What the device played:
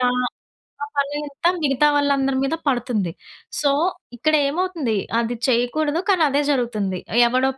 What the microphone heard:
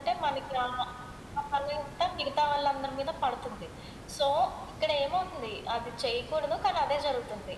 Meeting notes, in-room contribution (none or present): none